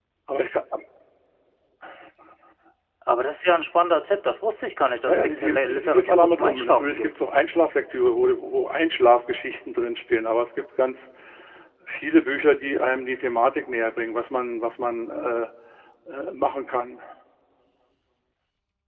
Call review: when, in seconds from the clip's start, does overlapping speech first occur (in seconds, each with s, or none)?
5.1 s